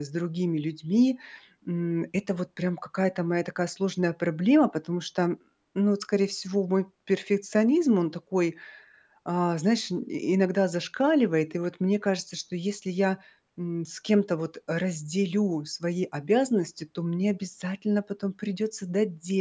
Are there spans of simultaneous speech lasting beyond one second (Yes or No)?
No